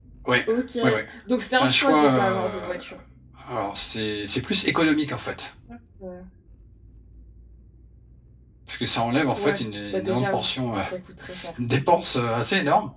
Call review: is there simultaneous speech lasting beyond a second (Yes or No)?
Yes